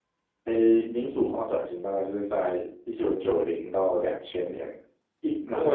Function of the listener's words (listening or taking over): taking over